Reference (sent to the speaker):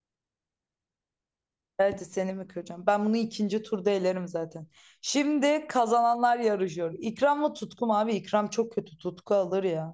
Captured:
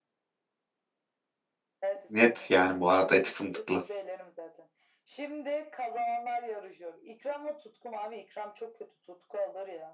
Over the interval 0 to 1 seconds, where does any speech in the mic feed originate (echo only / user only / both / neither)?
neither